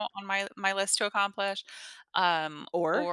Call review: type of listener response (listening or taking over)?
listening